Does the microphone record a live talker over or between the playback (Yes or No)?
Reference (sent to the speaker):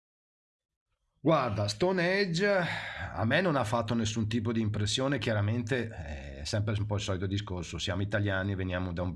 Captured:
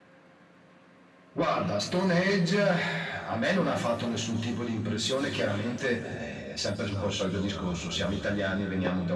Yes